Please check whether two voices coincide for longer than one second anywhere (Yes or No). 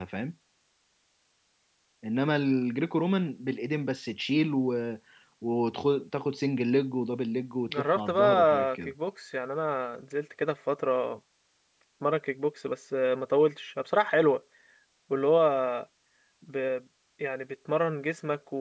Yes